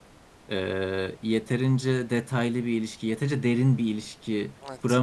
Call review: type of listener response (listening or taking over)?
taking over